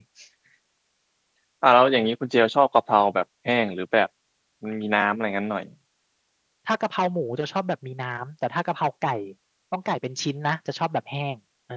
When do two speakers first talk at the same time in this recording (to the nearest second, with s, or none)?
none